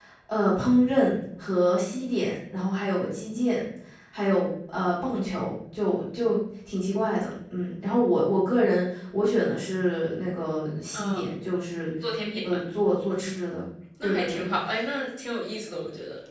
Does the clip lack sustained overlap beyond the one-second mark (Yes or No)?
Yes